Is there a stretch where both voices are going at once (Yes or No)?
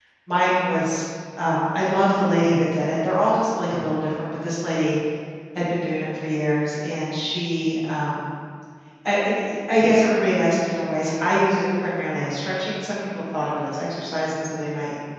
No